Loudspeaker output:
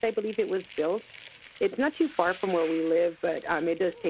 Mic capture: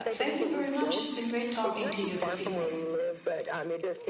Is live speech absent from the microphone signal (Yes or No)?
No